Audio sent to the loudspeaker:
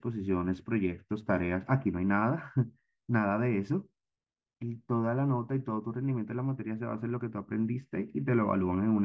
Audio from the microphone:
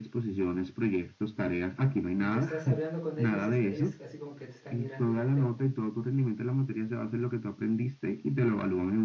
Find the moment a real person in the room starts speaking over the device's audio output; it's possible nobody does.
2.2 s

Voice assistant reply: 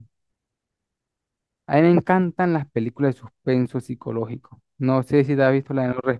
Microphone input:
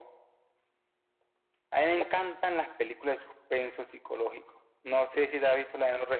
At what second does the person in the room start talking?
none

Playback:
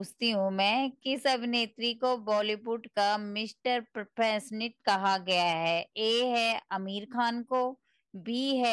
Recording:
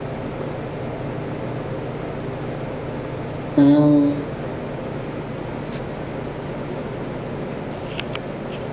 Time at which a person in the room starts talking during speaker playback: 3.6 s

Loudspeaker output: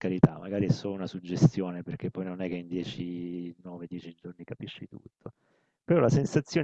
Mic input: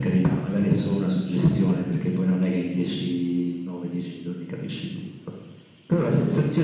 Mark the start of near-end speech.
none

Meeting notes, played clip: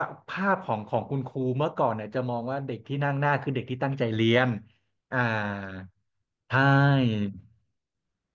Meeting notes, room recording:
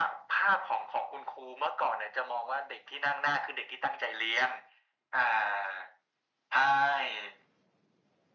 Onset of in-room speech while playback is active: none

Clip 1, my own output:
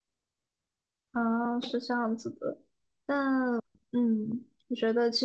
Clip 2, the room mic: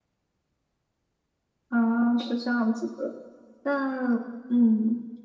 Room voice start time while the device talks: none

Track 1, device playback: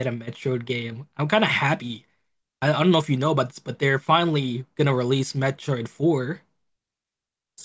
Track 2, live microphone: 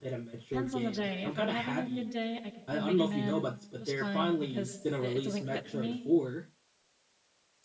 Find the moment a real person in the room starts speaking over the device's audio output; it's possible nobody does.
0.4 s

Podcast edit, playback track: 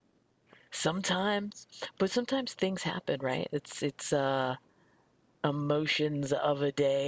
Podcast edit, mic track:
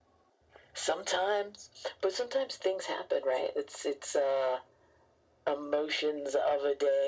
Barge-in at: none

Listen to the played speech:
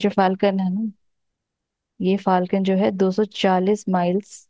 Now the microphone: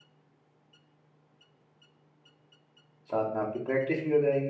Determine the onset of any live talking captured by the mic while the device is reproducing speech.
3.1 s

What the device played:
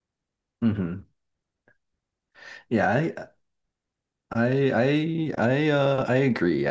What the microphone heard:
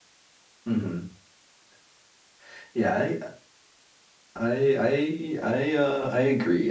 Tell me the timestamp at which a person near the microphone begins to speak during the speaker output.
none

